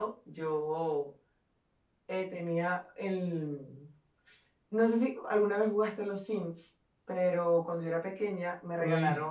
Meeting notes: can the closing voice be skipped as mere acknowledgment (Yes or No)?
Yes